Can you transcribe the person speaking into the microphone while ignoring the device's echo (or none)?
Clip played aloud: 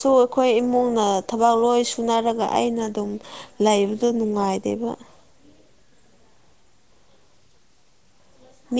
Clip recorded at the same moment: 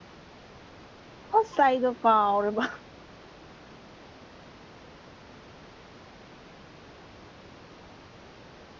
ꯑꯁ ꯑꯩꯗꯣ ꯀꯥꯎꯔꯦꯕ